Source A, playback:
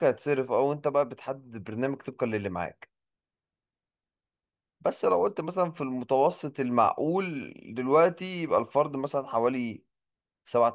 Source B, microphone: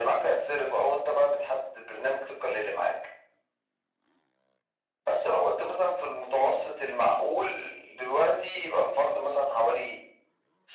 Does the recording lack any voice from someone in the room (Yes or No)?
Yes